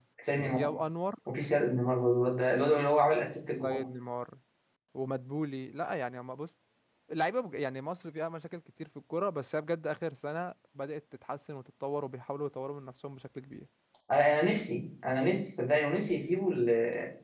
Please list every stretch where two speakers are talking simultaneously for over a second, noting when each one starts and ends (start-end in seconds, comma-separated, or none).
none